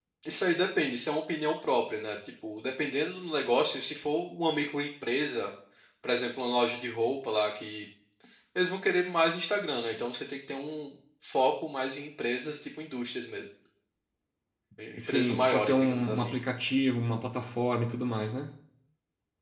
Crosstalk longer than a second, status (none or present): present